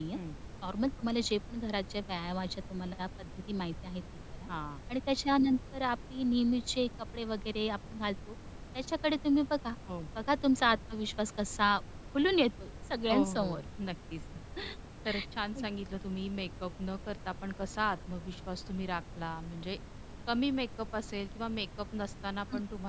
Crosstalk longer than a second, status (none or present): none